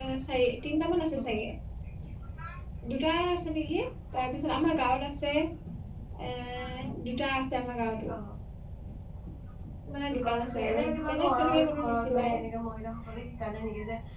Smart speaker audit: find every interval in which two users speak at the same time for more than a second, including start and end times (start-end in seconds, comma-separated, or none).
10.2-12.3